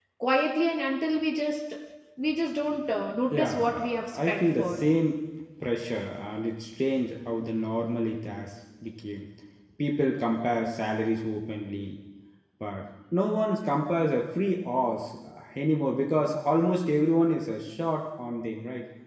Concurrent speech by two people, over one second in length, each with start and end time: 3.4-4.8

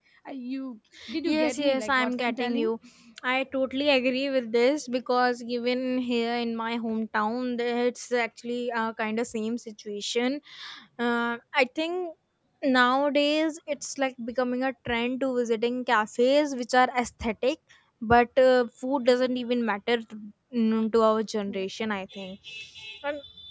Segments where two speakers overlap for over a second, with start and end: 1.3-2.7

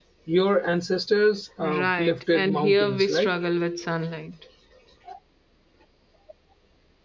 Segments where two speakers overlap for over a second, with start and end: 1.8-3.3

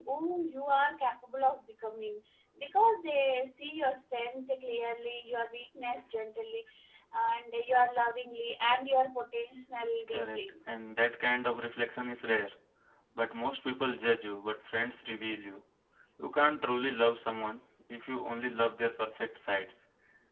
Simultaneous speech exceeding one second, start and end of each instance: none

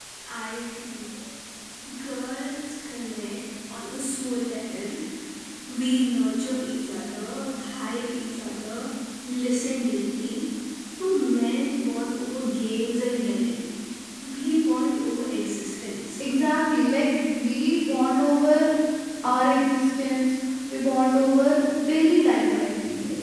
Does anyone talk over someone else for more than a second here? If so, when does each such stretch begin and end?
none

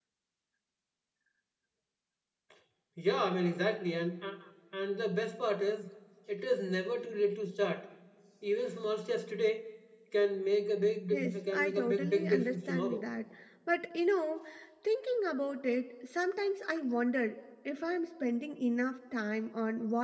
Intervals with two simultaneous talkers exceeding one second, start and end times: 11.1-13.0

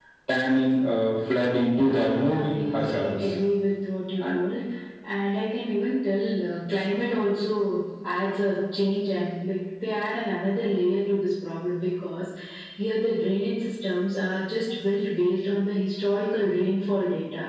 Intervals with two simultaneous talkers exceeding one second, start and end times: 1.7-3.1

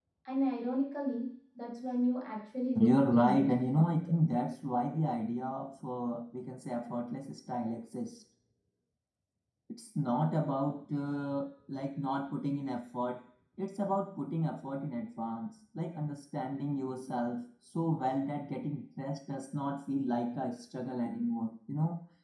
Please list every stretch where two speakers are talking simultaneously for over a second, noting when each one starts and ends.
2.8-4.2

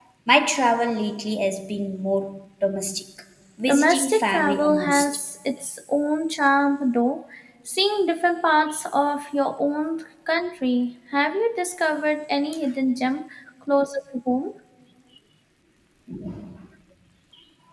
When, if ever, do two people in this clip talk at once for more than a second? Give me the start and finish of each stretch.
3.7-5.2

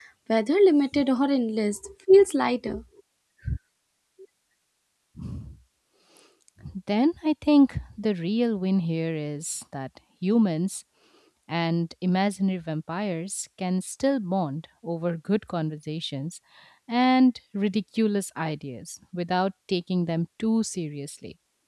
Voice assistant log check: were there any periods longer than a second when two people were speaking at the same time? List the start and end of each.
none

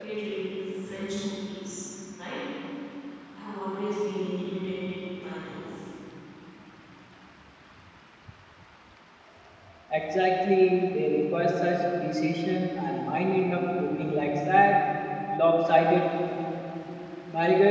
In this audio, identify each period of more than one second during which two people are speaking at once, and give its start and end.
none

